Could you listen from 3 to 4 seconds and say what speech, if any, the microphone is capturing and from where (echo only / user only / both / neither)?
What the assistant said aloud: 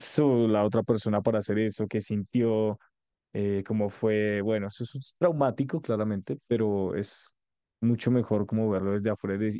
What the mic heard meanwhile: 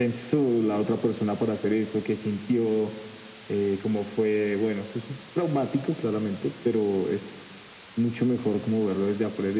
echo only